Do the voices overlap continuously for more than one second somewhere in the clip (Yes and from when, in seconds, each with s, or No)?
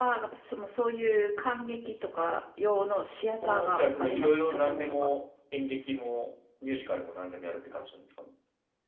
Yes, from 3.4 s